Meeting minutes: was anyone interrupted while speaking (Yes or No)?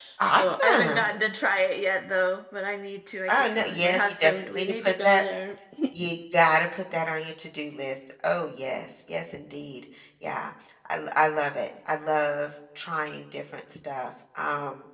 Yes